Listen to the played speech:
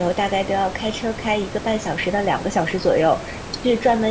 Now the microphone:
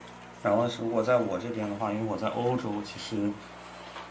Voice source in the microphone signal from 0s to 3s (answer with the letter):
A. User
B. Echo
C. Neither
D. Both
A